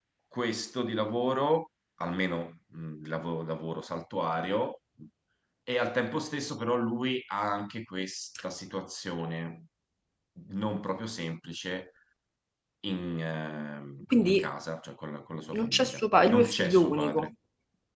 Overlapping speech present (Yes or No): Yes